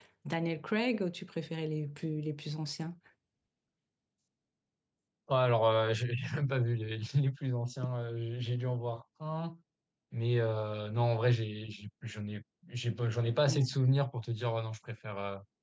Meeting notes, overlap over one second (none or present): none